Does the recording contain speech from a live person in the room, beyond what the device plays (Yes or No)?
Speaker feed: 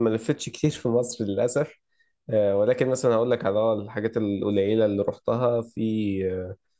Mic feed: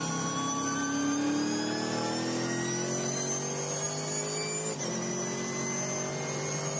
No